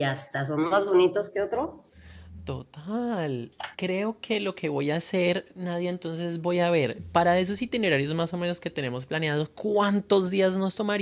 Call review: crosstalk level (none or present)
none